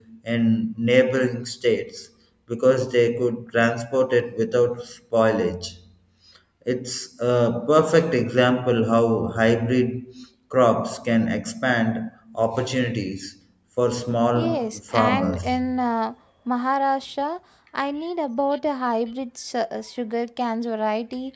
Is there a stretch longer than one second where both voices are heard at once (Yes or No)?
Yes